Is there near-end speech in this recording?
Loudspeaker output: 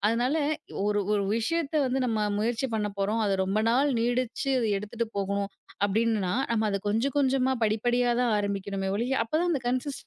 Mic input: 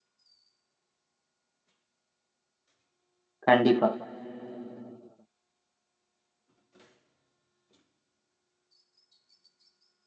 Yes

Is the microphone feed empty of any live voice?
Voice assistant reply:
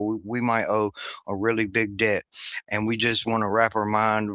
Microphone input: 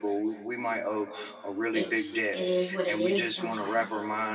No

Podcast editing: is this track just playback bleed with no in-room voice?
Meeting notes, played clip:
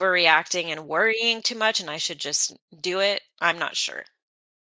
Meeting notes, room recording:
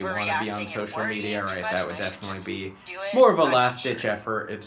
No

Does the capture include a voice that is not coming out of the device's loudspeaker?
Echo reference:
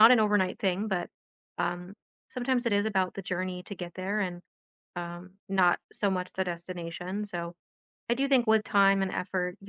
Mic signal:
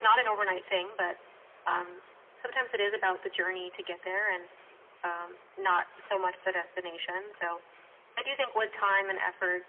No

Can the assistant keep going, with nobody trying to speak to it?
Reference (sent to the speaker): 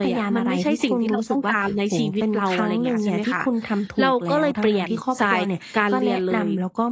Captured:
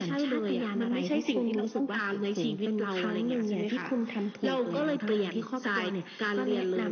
No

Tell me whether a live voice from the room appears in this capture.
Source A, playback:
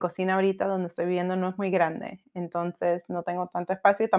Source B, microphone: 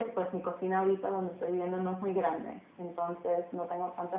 No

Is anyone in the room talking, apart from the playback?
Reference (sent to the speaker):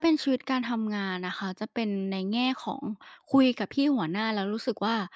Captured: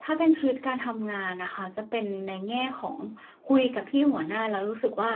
No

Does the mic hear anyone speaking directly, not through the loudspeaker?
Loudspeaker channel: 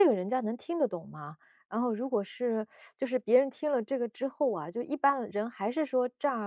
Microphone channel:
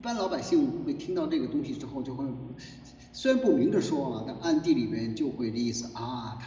Yes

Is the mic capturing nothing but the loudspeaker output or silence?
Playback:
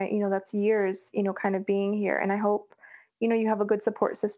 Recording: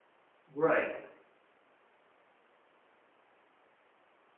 No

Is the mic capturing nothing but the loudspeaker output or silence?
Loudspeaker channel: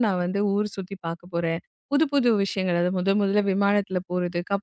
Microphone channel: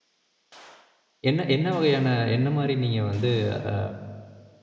No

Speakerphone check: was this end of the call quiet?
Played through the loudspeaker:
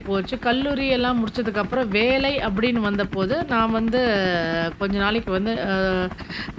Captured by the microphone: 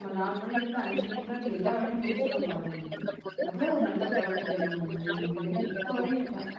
No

